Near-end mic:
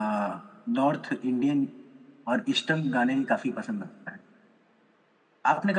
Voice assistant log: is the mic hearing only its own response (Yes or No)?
Yes